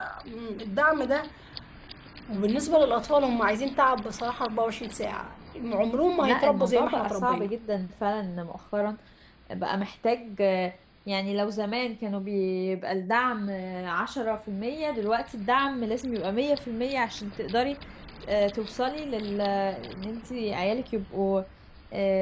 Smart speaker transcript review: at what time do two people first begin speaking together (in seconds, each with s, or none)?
6.2 s